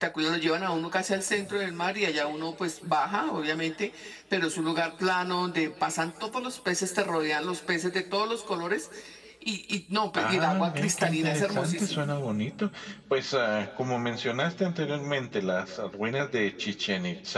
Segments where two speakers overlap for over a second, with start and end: 10.2-12.0

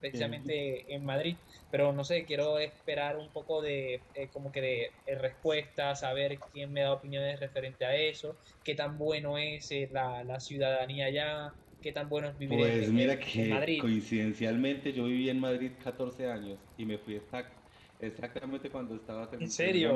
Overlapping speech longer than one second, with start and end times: 12.5-13.8

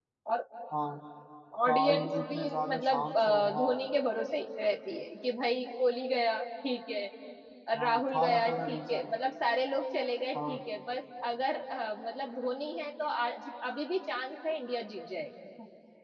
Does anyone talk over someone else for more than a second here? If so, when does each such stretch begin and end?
1.7-3.8, 7.8-9.1

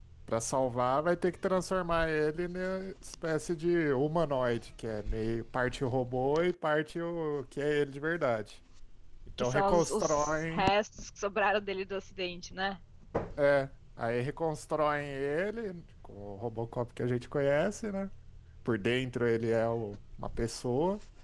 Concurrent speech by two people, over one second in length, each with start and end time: 9.4-10.7

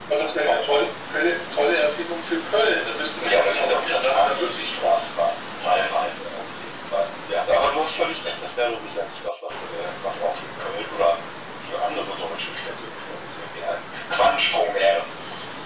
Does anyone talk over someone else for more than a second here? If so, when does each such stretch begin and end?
3.2-5.0

